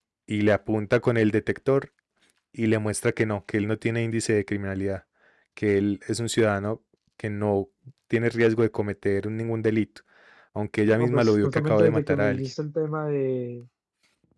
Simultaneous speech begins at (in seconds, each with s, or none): 10.9 s